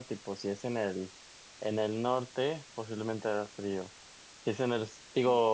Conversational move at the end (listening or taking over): listening